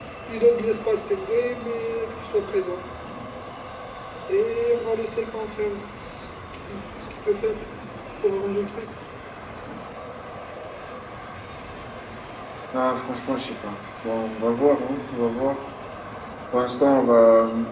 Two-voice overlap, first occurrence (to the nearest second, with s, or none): none